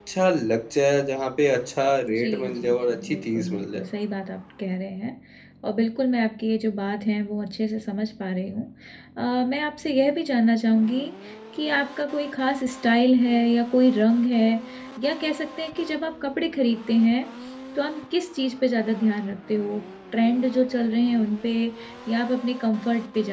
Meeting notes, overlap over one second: present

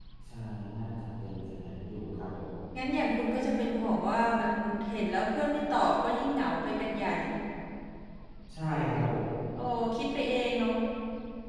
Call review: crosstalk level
none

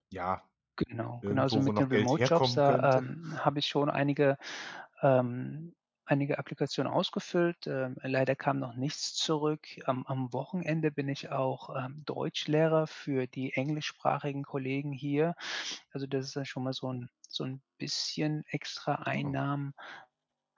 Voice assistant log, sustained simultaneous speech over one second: present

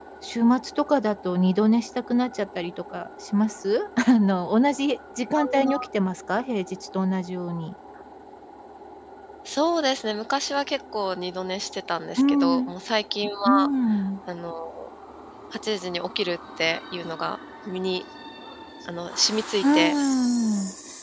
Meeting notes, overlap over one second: none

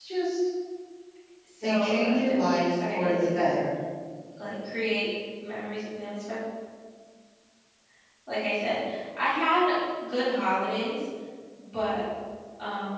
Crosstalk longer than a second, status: present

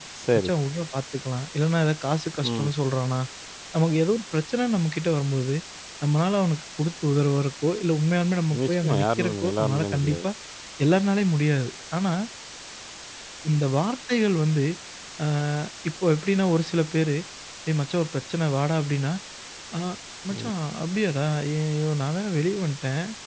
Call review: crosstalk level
present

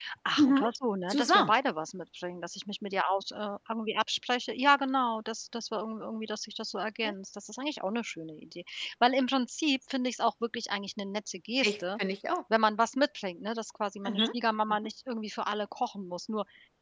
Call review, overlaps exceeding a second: none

